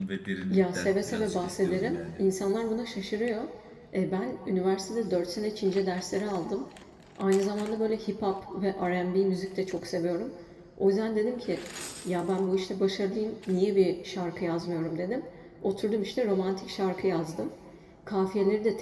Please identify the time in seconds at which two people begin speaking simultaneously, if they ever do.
0.5 s

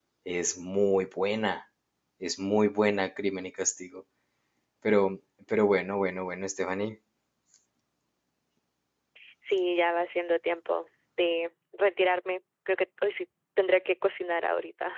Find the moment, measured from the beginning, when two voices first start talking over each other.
none

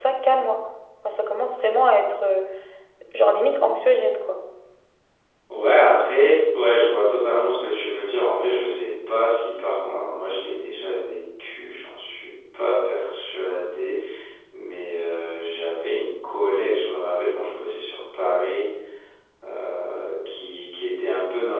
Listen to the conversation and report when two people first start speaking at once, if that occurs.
none

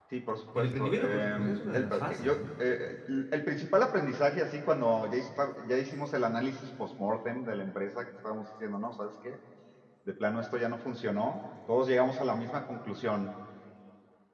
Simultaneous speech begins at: 0.6 s

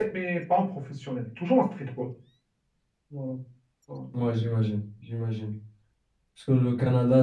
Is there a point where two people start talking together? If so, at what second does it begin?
none

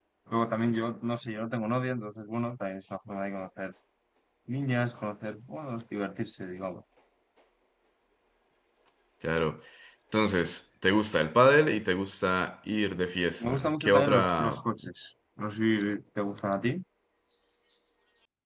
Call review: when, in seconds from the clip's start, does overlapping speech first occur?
13.4 s

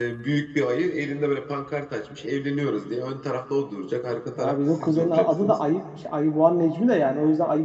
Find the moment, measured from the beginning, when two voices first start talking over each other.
4.4 s

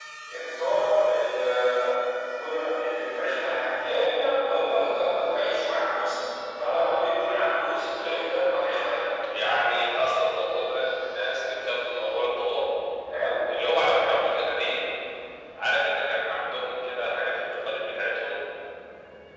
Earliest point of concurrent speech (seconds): 7.7 s

